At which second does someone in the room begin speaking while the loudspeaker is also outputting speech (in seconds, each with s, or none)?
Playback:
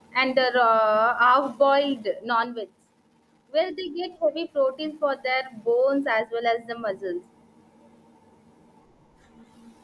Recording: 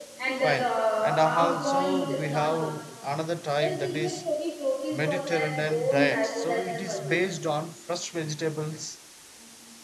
0.3 s